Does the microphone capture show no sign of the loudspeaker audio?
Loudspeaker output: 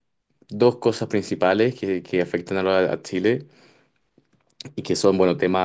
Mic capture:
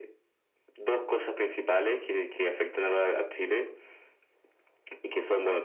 No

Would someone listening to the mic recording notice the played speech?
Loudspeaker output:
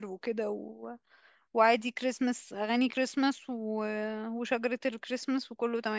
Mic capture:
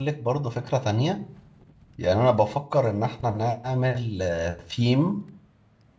No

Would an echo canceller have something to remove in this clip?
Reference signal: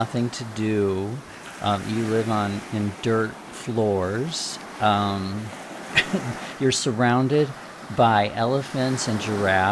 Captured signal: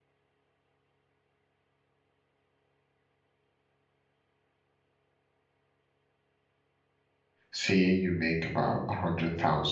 No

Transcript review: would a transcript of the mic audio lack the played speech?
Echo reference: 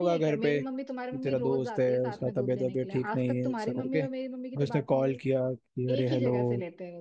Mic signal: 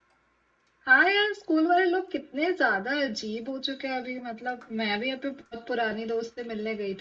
Yes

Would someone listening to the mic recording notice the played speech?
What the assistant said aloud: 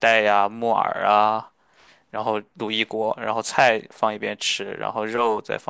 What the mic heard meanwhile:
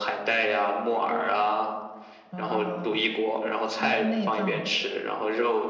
Yes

